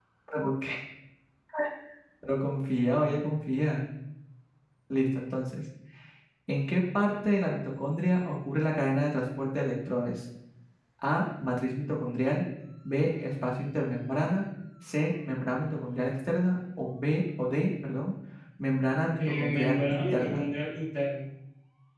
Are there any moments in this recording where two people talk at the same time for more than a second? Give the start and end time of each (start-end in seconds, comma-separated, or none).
19.2-20.4